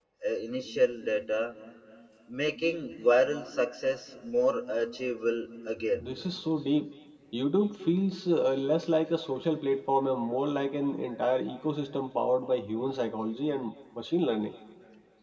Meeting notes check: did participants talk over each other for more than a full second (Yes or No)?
No